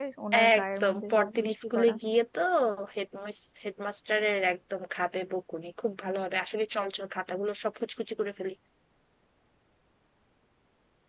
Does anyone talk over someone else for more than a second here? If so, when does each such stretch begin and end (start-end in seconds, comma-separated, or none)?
0.6-1.9